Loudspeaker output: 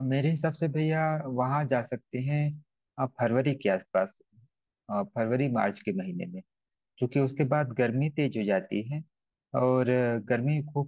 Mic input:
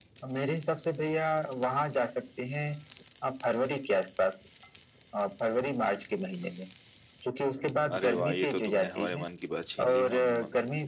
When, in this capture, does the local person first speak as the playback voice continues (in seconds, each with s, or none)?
7.9 s